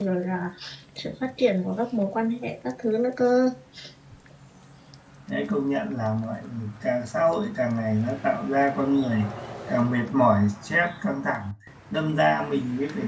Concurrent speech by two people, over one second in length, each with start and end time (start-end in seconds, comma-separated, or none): none